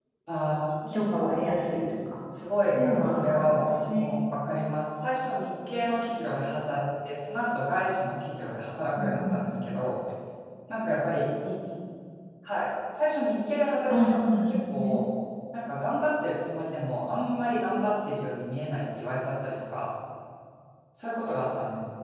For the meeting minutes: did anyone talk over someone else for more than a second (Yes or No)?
Yes